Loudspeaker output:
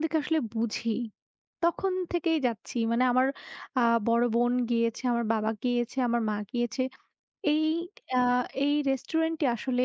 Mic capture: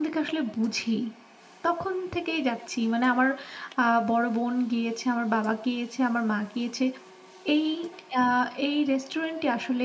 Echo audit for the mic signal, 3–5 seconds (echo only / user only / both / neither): echo only